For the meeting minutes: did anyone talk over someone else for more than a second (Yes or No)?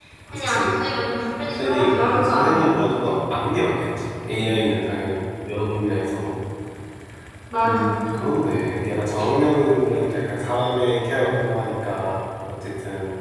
Yes